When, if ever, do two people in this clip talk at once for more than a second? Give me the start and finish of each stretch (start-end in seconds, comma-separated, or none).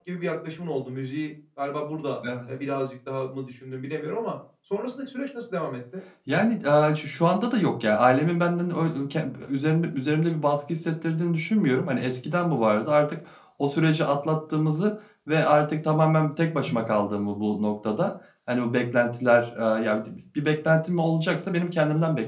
none